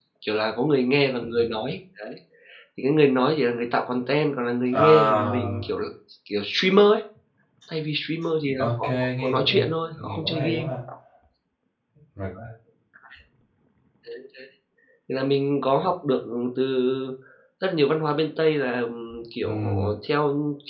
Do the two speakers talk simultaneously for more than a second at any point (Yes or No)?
Yes